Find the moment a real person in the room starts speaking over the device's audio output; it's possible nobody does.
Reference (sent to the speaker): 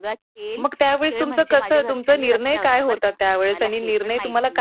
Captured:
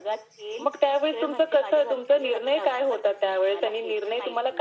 none

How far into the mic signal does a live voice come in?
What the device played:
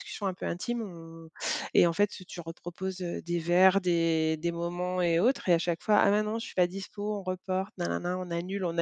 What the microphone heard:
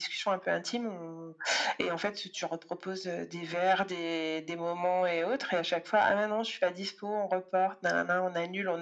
none

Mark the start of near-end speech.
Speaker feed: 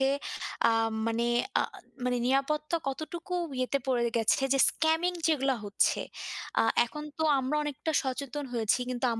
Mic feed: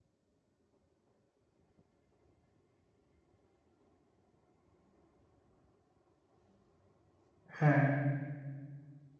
7.6 s

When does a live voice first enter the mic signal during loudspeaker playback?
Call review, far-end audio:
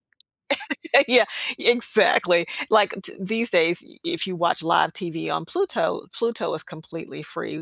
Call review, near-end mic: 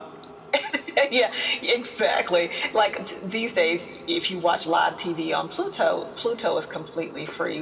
none

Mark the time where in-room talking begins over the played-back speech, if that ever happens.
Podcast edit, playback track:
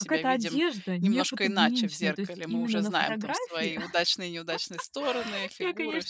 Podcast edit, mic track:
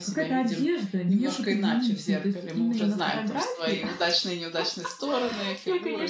none

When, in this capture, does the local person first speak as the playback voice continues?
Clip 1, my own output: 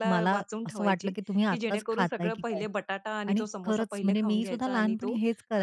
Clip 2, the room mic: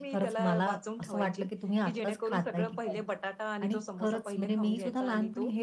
none

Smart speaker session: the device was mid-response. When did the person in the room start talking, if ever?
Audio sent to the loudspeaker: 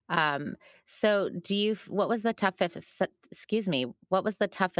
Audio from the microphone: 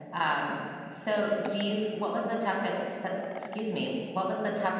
none

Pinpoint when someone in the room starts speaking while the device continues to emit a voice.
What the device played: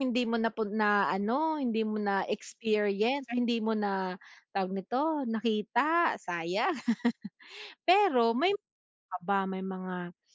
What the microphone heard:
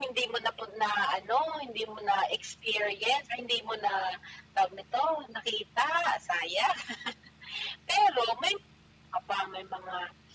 none

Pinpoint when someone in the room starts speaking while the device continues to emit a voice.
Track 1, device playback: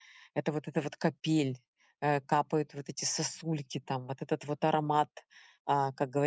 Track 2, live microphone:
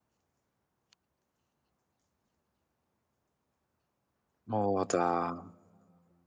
4.5 s

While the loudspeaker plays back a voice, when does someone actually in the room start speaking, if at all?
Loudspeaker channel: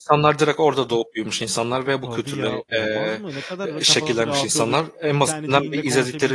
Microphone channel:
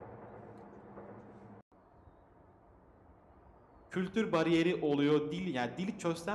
3.9 s

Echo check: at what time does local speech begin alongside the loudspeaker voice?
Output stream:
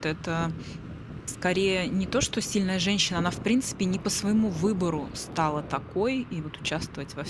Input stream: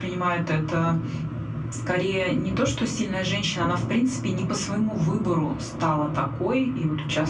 none

